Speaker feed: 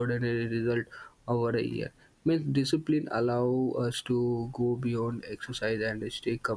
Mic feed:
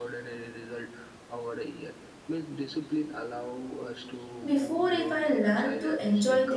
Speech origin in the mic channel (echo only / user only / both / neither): both